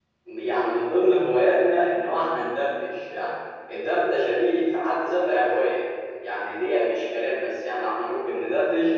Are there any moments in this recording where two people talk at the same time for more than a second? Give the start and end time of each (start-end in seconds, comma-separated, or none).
none